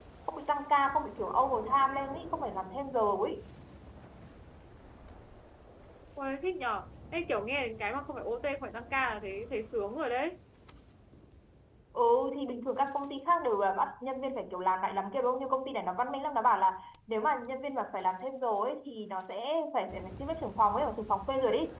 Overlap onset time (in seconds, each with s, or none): none